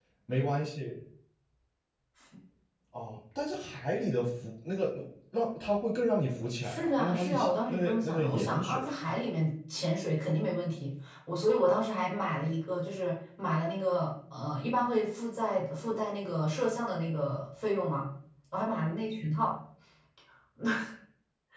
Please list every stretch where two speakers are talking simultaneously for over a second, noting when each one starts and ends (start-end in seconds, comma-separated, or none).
6.6-8.8